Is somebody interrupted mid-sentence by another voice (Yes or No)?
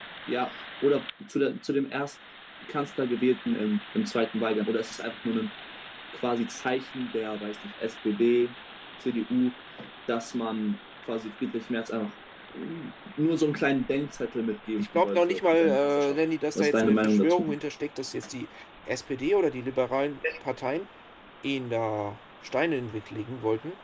Yes